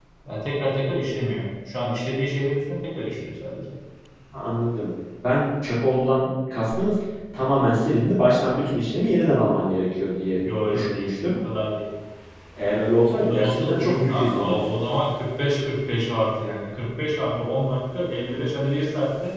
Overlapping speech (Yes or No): Yes